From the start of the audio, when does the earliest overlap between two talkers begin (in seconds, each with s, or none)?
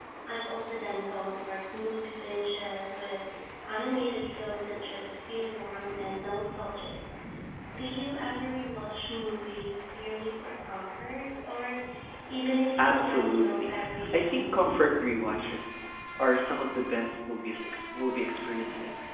12.8 s